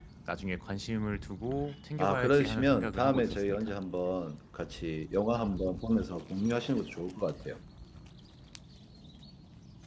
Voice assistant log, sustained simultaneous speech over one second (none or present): present